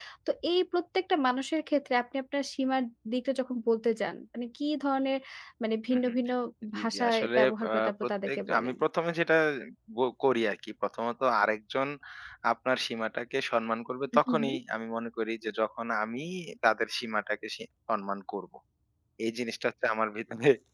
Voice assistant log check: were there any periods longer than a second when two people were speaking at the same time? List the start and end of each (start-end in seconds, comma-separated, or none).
6.8-8.8